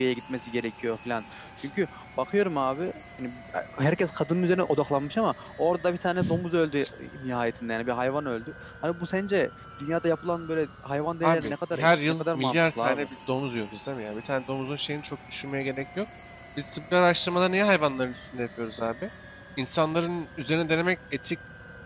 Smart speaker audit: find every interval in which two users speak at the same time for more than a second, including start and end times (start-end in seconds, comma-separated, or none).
11.2-13.0